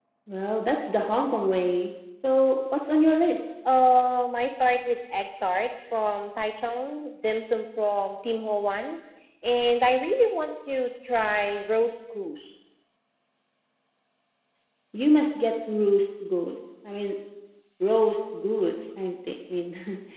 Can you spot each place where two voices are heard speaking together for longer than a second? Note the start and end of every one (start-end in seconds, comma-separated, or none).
none